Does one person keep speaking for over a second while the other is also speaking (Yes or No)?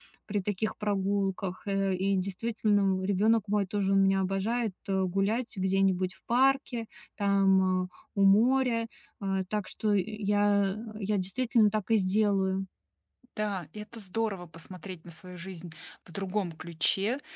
No